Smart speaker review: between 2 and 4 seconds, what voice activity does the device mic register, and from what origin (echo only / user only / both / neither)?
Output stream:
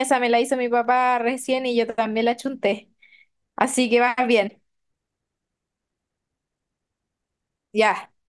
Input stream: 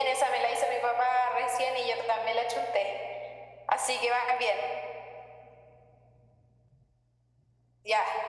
echo only